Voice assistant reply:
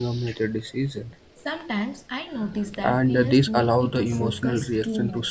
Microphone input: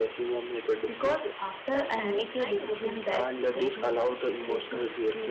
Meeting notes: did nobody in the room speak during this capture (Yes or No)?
No